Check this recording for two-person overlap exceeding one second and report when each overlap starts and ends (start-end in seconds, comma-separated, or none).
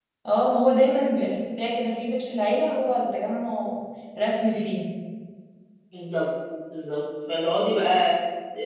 none